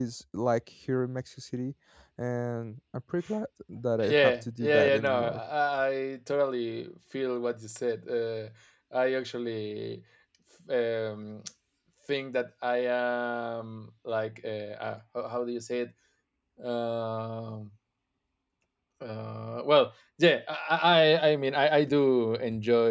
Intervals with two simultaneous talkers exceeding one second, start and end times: 4.1-5.4

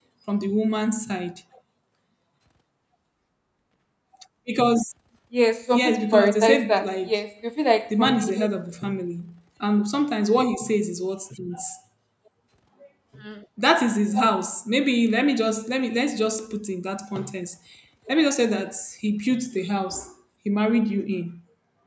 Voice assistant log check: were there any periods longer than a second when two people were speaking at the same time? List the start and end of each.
5.7-7.1

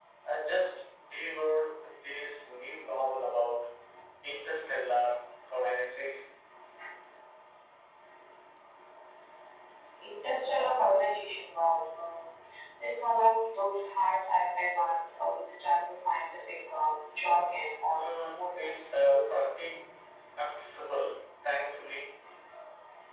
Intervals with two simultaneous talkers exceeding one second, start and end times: 17.9-19.2

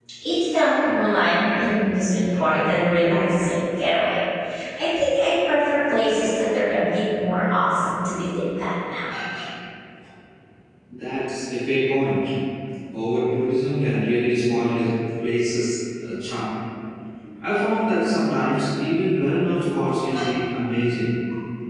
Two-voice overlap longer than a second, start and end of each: none

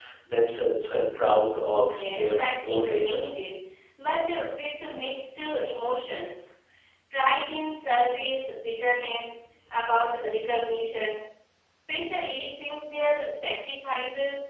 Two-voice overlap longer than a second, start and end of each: 1.8-3.2

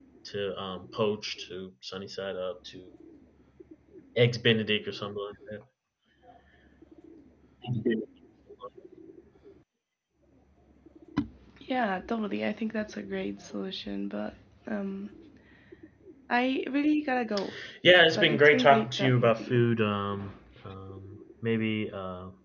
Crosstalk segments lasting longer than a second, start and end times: 18.2-19.6

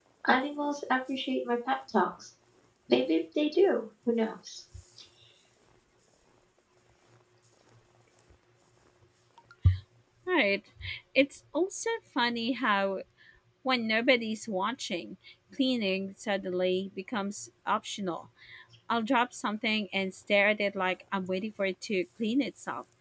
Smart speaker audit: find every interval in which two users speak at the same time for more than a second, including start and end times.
none

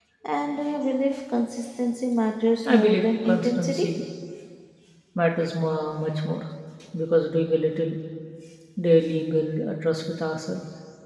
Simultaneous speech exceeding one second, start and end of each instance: 2.6-4.0

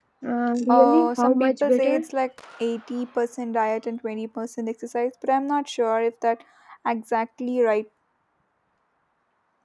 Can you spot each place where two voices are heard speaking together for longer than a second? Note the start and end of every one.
0.7-2.0

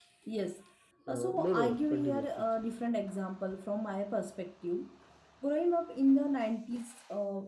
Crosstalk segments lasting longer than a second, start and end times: 1.1-2.5

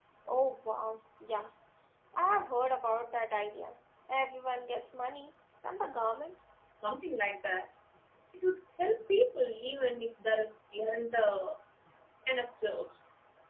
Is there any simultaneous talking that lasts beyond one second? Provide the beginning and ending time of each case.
none

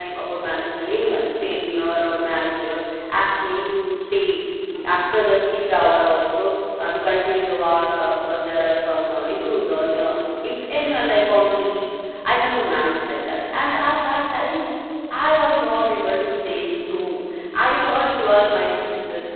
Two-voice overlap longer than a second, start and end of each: none

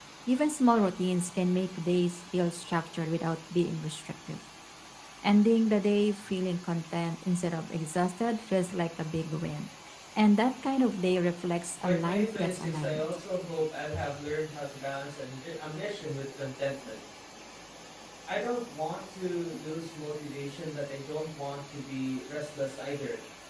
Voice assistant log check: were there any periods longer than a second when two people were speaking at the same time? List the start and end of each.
11.8-13.1

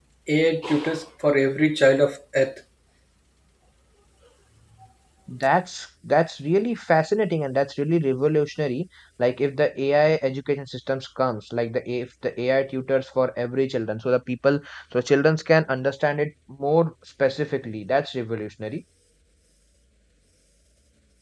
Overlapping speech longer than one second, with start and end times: none

